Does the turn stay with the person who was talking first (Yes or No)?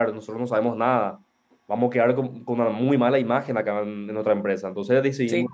Yes